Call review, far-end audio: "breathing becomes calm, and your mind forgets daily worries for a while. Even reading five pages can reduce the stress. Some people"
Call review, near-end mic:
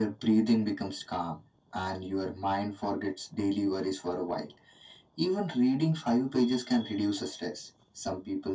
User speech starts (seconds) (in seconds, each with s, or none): none